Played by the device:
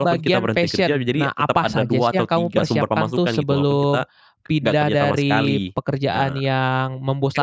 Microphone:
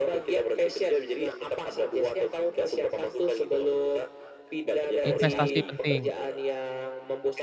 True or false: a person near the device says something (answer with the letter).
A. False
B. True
B